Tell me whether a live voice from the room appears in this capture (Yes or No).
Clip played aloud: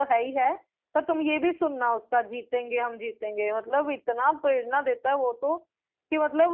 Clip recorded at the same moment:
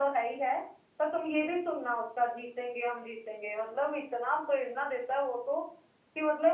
No